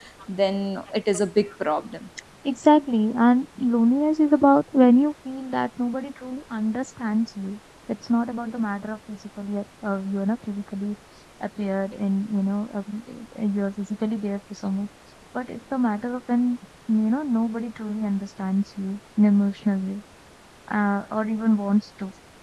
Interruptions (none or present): none